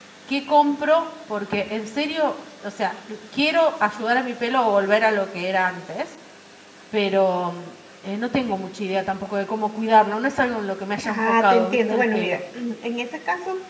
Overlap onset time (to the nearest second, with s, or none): 11 s